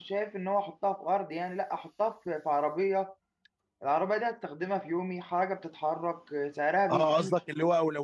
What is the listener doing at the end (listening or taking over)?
taking over